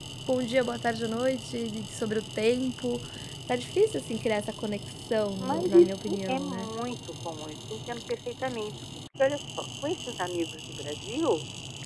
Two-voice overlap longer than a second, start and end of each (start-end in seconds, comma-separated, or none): 5.4-6.7